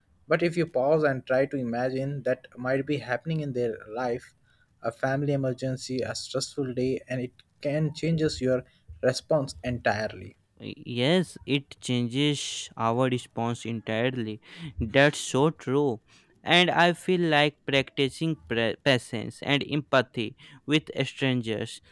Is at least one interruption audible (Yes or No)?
No